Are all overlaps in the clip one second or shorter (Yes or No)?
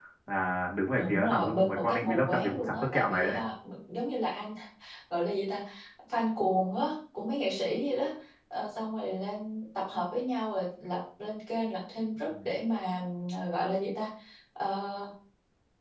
No